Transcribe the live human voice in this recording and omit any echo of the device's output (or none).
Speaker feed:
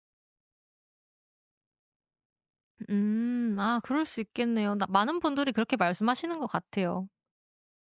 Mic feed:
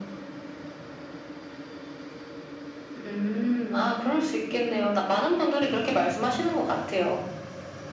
none